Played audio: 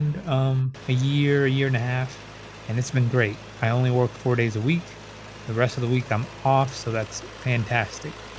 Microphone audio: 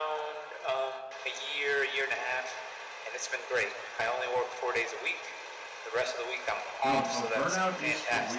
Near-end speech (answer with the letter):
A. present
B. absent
A